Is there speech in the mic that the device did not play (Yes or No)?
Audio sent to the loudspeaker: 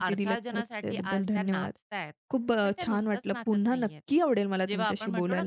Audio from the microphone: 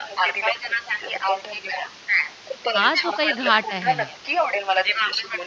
Yes